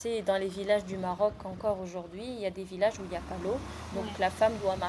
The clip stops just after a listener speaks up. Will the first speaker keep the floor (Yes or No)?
Yes